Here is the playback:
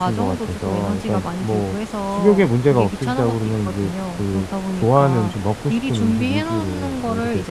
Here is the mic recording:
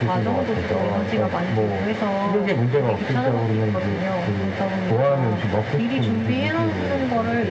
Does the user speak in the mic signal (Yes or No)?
No